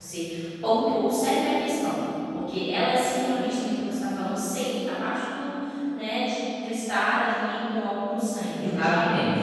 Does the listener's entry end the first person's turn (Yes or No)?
No